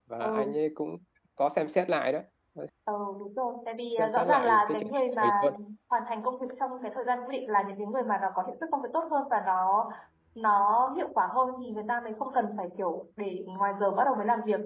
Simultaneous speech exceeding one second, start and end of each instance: 4.0-5.3

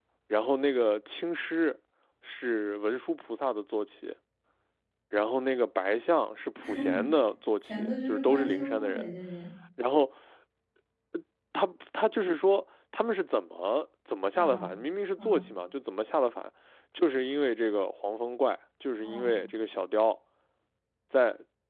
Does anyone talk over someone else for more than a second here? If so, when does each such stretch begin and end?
7.6-9.1

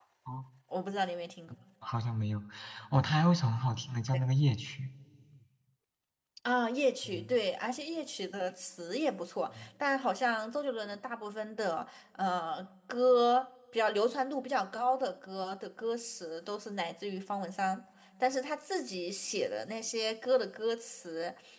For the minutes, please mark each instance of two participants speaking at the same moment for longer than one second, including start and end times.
none

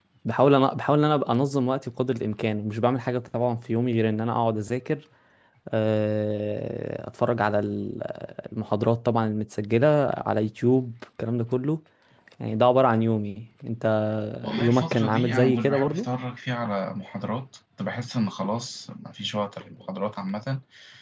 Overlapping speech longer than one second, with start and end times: 14.6-16.1

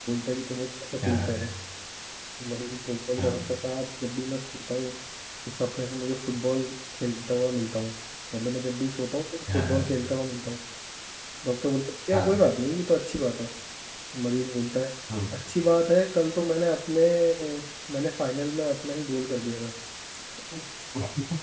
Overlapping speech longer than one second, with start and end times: none

